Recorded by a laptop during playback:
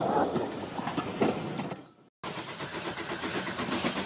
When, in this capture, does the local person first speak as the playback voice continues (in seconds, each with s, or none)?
none